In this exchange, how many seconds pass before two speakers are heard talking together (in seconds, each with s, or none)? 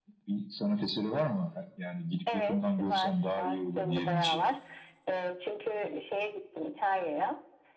2.3 s